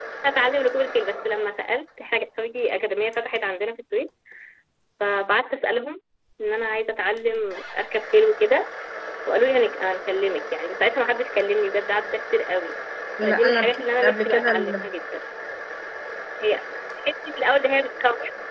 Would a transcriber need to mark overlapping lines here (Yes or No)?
Yes